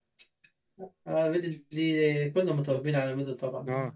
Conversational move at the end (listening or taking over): taking over